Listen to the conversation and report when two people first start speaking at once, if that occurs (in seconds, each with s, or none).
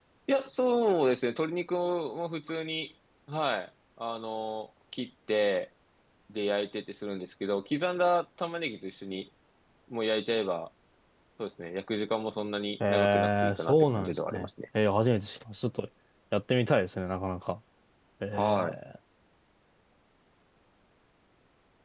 12.9 s